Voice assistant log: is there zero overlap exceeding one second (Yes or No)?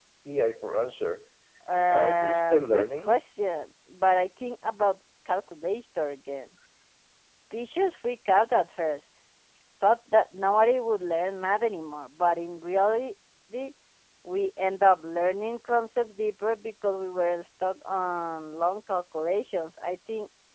No